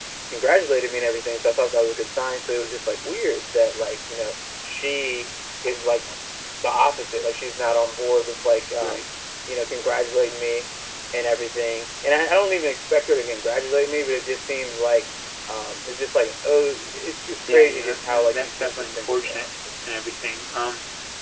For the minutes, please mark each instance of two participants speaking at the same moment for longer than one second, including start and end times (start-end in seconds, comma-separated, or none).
17.5-19.5